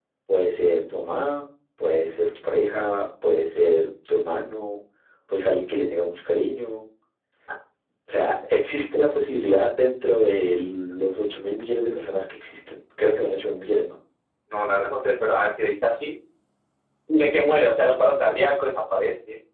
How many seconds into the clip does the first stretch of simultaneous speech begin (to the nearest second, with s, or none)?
none